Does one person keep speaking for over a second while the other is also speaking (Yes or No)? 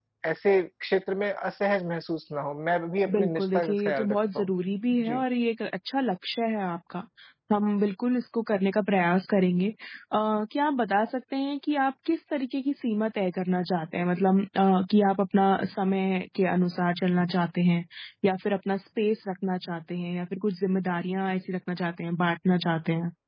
Yes